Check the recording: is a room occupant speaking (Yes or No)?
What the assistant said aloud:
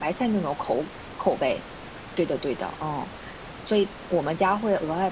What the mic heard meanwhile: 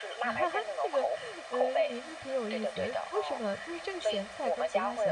Yes